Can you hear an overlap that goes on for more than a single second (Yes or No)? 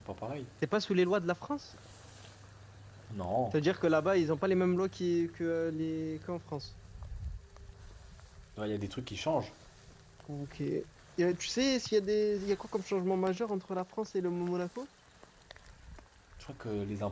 No